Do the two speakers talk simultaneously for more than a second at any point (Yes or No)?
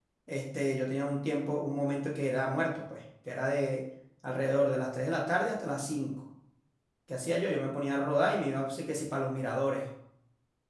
No